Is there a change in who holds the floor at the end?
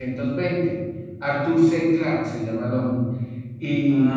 No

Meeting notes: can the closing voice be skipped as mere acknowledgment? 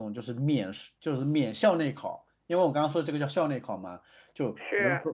Yes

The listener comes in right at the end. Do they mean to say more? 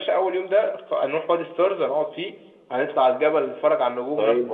Yes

